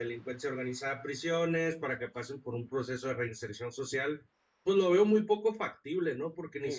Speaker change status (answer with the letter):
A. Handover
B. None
B